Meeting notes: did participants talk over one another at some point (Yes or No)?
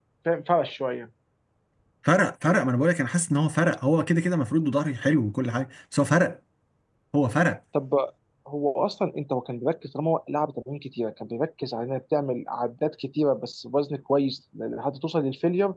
No